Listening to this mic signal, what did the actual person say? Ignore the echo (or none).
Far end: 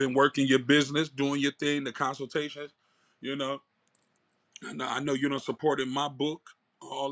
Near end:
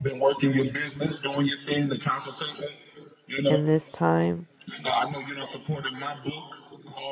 in this time